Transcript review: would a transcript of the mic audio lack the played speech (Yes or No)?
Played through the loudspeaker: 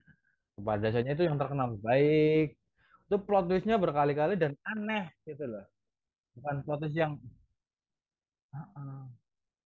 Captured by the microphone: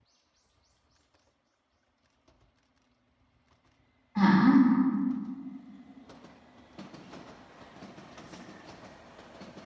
Yes